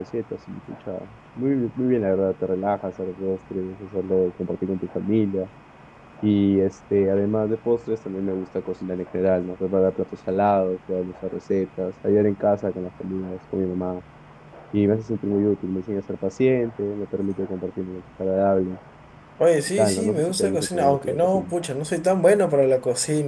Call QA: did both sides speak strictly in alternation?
No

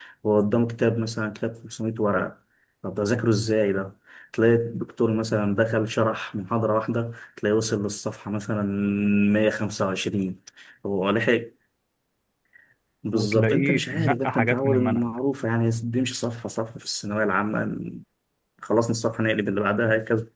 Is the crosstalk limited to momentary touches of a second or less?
No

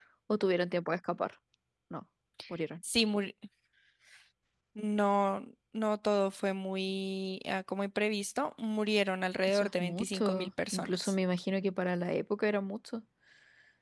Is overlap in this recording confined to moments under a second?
No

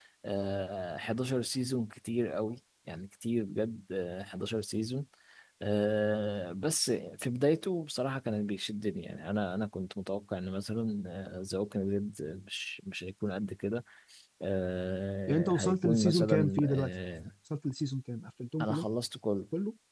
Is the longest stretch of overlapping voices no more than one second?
No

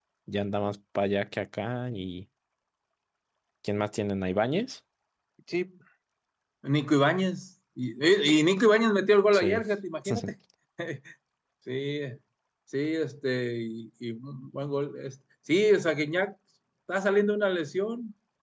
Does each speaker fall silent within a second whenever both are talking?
Yes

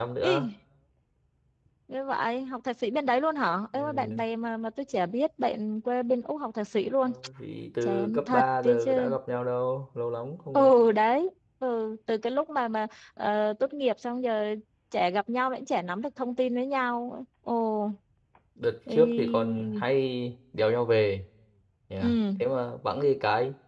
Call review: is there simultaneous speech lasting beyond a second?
Yes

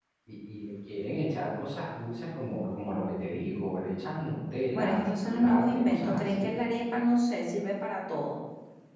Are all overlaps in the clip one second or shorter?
No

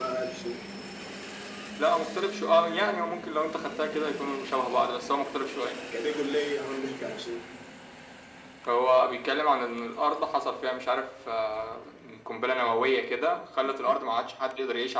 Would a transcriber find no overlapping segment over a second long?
Yes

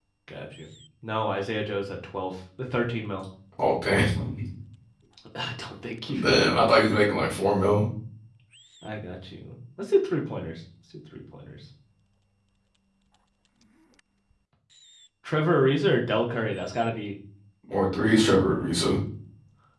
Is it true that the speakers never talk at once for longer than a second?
Yes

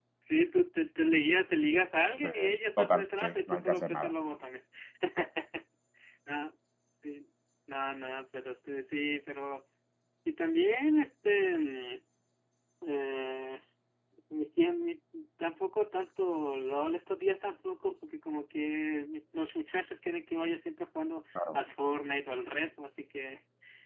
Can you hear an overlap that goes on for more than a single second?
Yes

